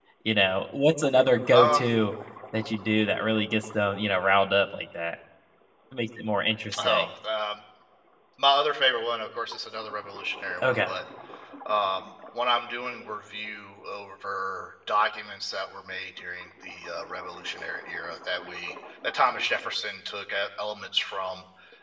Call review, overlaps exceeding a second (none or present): none